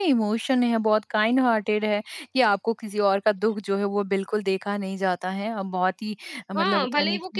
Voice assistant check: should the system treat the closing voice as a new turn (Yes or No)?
Yes